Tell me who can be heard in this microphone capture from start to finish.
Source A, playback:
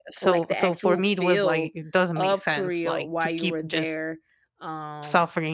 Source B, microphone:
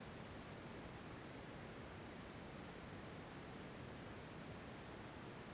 neither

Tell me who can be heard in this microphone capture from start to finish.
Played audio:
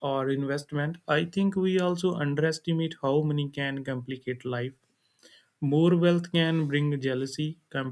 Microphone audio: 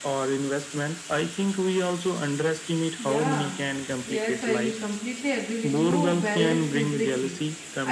both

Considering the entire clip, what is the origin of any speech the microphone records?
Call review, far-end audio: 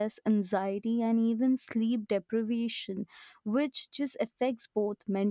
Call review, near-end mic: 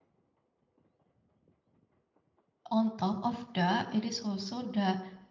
user only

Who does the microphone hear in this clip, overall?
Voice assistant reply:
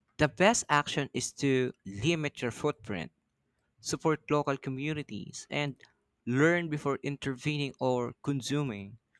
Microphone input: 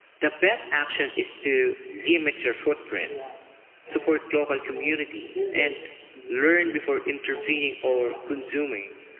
both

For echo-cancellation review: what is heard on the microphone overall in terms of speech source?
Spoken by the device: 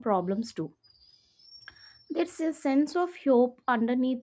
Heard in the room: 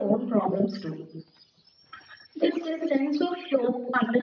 echo only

